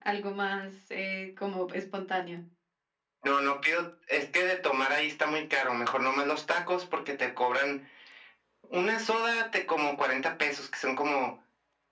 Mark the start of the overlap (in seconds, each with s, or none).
none